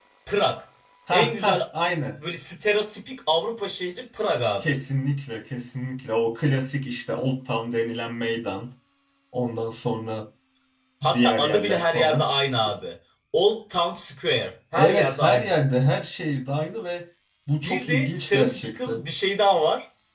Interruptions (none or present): present